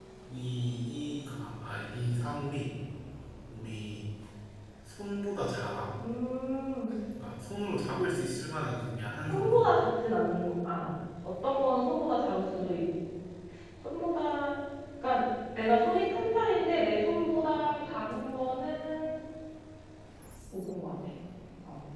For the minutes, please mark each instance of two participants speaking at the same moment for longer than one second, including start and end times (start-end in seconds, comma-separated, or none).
none